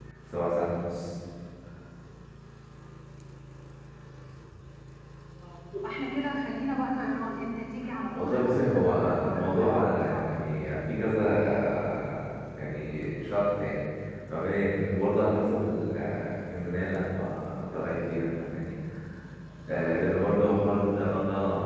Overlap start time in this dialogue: 8.2 s

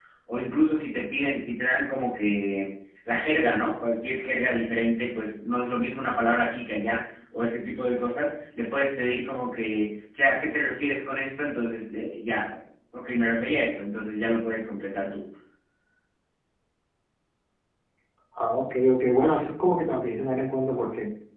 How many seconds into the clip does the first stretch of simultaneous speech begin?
none

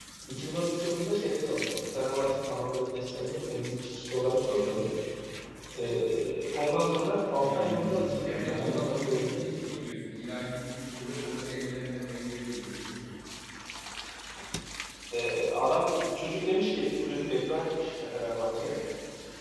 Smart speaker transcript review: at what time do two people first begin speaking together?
7.4 s

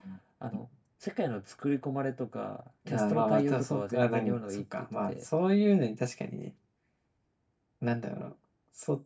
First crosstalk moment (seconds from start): 2.9 s

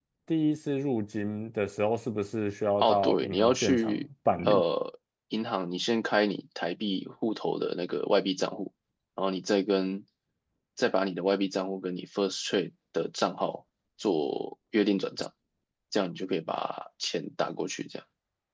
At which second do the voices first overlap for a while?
2.8 s

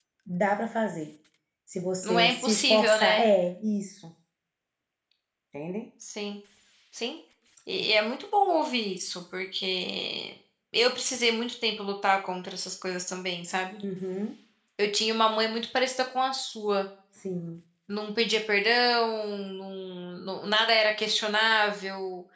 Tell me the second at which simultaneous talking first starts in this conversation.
2.0 s

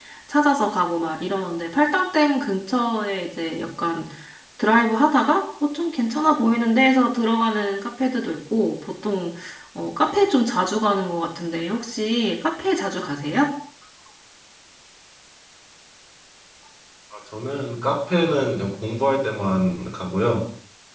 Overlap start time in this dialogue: none

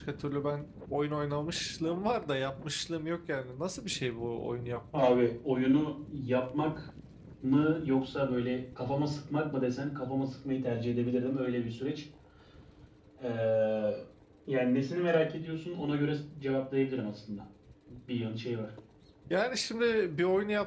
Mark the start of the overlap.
none

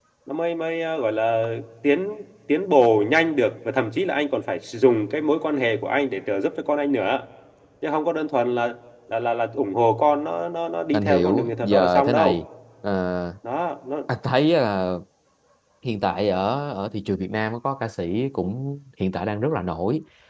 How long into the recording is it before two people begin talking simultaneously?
10.9 s

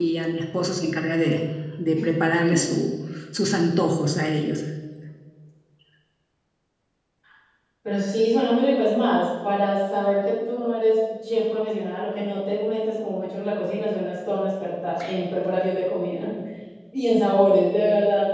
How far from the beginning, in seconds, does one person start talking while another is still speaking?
none

